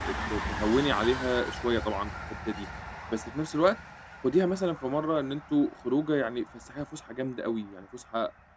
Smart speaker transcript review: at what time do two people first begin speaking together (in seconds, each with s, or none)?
none